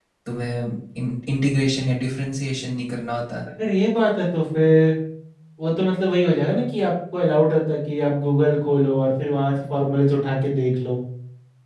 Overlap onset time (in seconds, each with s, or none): none